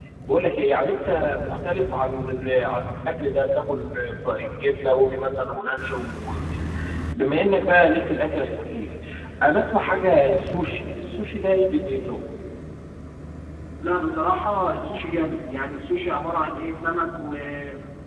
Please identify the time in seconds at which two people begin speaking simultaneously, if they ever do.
none

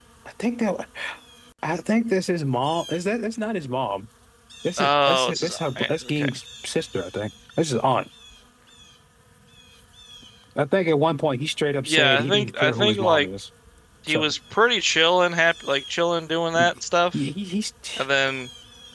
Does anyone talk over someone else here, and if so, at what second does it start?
4.8 s

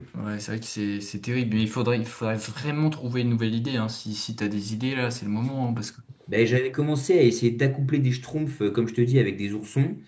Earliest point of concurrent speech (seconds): none

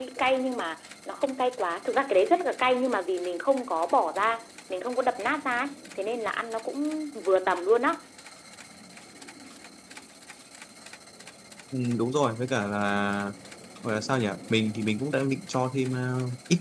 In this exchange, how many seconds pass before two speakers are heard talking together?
none

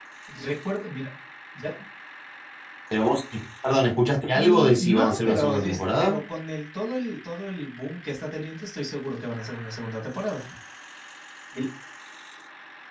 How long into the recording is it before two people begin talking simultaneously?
4.3 s

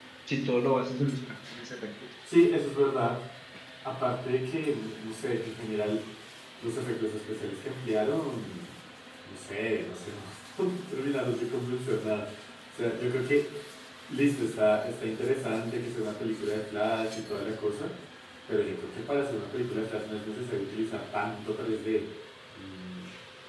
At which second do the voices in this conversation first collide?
none

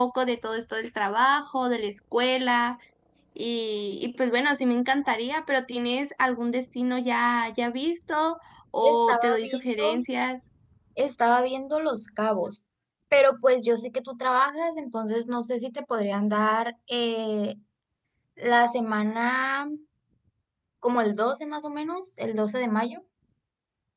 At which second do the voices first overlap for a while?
8.8 s

